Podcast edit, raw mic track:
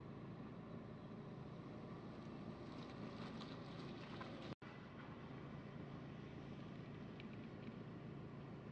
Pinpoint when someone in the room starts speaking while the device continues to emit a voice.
none

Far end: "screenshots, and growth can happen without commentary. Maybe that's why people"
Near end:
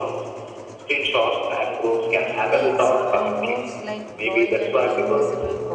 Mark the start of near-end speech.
2.5 s

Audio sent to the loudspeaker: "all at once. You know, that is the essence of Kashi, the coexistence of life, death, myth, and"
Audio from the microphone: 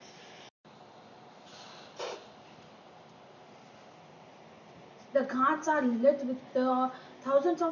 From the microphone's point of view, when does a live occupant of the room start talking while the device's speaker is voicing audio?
5.1 s

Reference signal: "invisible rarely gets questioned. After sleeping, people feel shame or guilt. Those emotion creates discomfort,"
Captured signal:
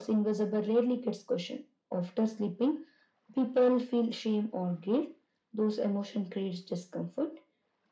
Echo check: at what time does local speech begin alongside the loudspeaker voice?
none

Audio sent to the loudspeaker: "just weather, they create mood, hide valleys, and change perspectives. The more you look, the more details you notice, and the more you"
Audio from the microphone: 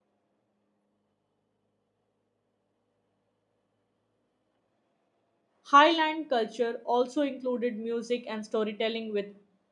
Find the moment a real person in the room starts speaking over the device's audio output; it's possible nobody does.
5.6 s

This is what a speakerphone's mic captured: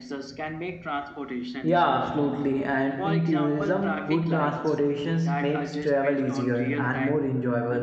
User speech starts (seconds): 1.6 s

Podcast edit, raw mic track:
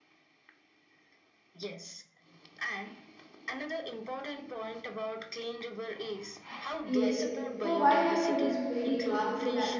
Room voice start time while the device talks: 6.9 s

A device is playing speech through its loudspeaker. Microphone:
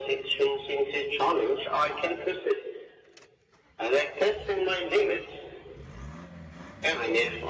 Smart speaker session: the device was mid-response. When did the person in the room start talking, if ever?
none

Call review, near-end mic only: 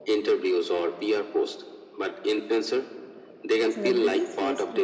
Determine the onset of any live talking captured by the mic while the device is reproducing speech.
3.7 s

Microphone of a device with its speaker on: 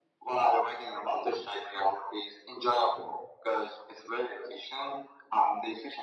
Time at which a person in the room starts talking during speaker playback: none

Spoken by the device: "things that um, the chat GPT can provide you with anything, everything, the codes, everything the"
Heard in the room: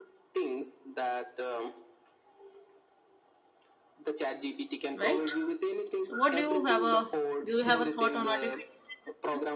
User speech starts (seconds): 4.9 s

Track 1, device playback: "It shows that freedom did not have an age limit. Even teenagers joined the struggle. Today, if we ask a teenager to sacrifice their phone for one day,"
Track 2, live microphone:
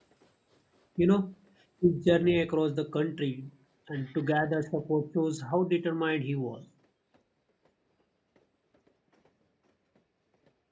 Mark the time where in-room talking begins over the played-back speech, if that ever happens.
1.0 s

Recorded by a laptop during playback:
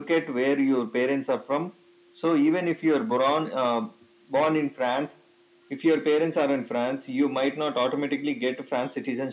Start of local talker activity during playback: none

